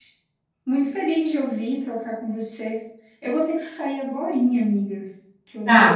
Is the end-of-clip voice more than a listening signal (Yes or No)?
No